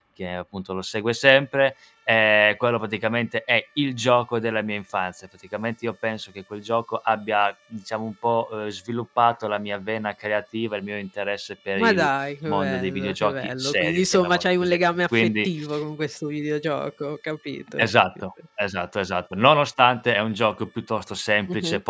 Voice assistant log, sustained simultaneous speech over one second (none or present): present